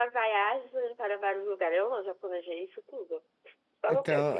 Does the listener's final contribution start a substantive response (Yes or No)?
Yes